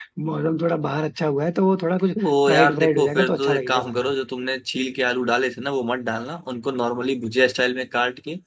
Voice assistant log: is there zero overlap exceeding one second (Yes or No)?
No